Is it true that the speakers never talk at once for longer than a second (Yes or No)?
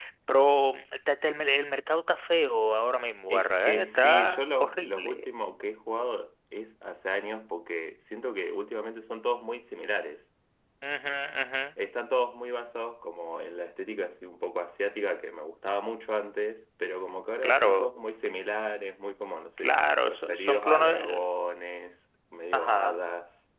No